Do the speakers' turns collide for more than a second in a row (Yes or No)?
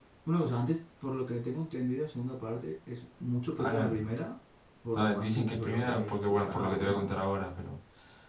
Yes